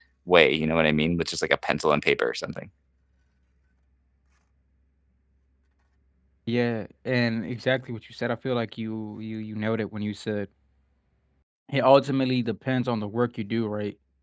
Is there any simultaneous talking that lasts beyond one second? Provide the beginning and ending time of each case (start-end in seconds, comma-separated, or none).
none